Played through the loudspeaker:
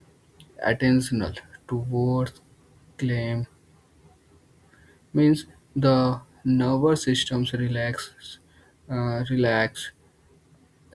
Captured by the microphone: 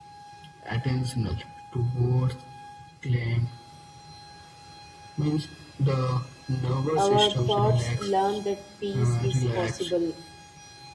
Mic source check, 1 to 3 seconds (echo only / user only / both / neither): echo only